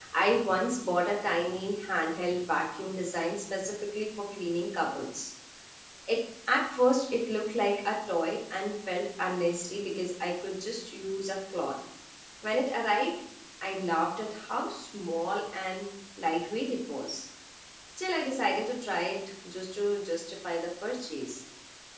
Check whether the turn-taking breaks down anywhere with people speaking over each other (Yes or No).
No